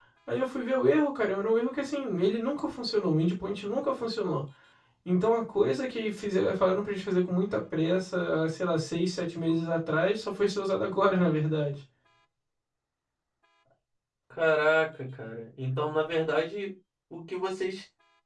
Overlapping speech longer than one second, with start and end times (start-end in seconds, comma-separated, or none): none